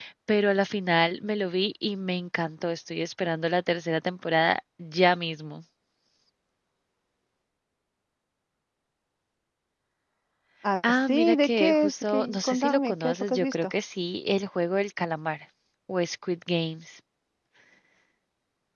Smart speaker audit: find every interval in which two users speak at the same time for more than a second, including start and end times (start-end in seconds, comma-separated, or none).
10.9-13.7